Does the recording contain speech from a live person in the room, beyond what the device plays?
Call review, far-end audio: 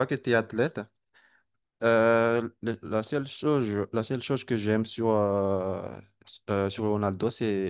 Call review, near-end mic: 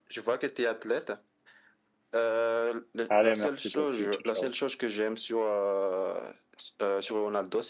Yes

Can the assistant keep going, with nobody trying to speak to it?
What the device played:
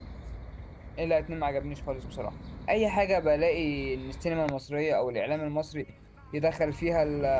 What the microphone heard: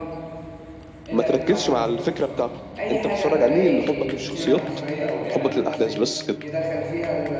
No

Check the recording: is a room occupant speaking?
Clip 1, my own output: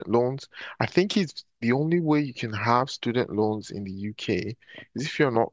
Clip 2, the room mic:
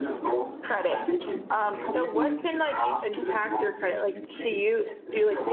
Yes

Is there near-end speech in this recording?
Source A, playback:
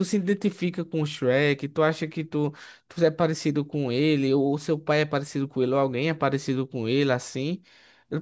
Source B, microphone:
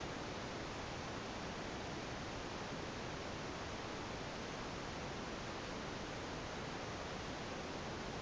No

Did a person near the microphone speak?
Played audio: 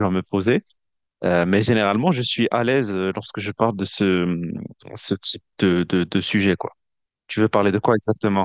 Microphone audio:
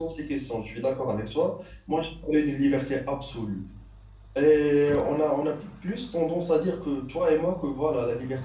Yes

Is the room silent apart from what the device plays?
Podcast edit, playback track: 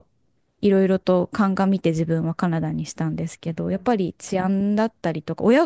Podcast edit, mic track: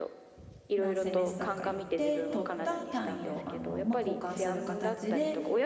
No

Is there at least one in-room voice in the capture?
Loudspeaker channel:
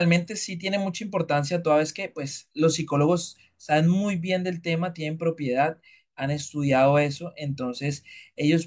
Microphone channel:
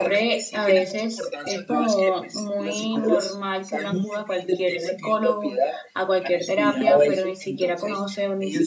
Yes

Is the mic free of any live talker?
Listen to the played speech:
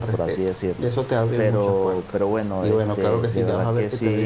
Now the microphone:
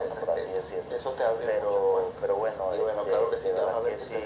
Yes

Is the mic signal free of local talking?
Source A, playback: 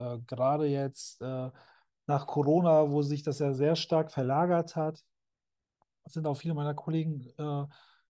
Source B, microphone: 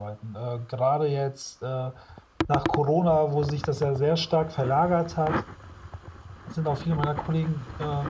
Yes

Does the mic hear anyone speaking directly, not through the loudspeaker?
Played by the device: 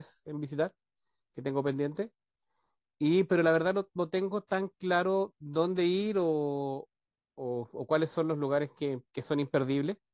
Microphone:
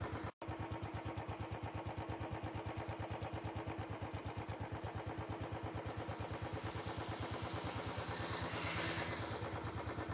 No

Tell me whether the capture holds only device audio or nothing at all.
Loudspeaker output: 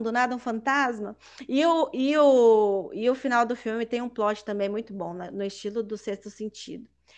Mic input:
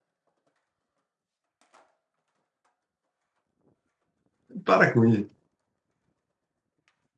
No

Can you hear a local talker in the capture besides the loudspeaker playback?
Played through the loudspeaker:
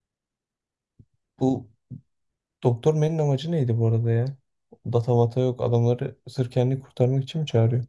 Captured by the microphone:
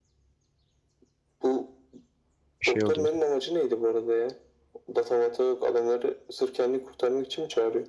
Yes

